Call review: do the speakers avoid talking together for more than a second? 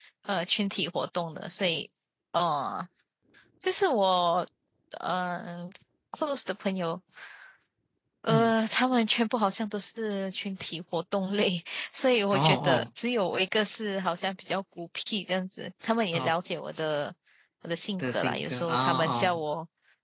No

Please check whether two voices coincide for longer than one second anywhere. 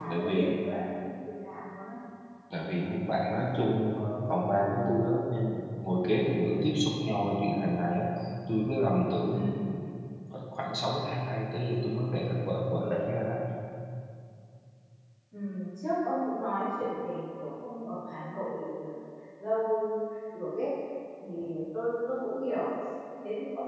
No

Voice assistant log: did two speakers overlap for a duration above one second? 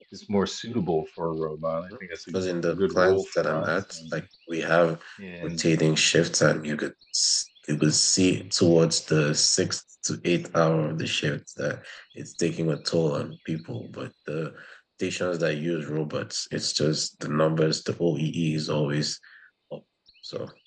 Yes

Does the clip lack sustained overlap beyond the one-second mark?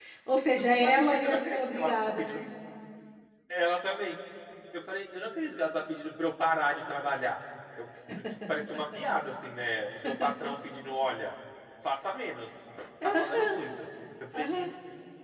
No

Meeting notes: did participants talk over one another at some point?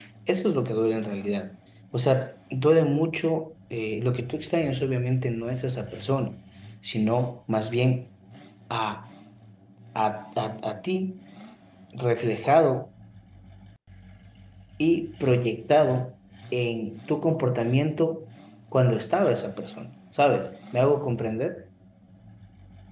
No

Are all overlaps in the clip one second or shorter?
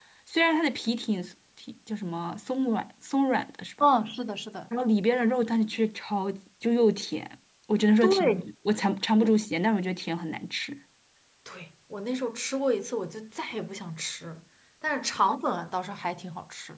Yes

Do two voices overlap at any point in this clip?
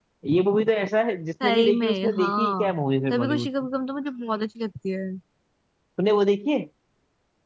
Yes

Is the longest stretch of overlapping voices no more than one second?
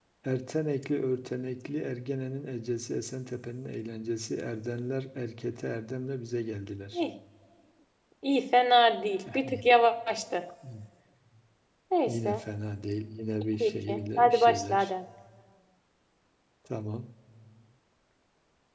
No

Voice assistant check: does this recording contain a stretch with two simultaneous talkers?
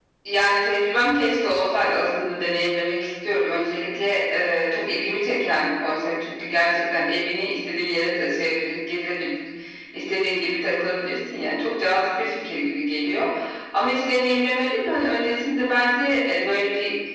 No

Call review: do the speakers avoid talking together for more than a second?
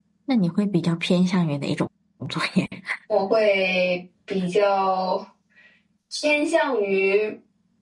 Yes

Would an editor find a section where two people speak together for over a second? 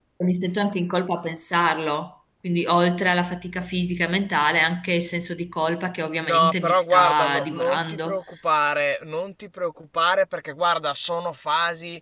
Yes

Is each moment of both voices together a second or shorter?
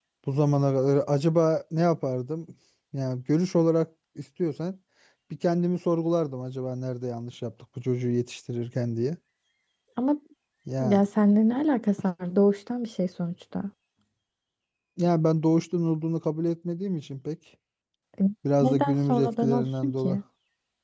No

